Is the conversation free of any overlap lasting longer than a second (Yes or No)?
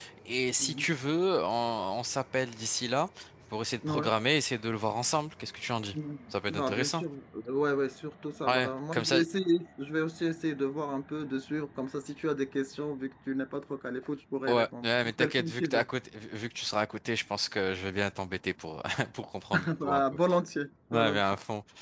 No